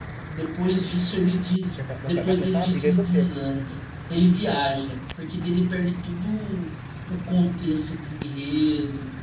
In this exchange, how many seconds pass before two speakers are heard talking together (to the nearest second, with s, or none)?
2 s